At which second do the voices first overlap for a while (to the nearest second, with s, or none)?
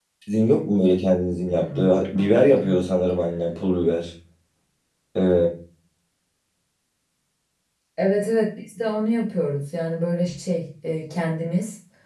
1 s